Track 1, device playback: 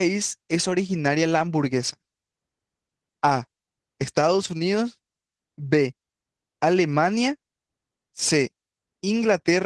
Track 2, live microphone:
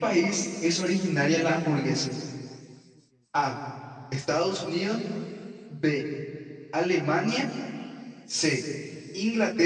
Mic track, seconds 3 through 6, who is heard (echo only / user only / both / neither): echo only